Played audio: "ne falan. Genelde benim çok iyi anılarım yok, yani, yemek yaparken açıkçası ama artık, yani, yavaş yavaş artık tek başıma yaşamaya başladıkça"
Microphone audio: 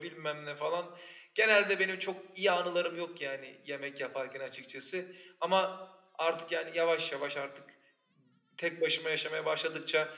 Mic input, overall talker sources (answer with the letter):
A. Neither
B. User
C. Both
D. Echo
D